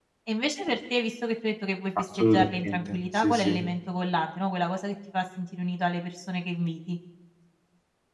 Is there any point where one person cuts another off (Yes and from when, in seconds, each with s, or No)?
Yes, from 2.2 s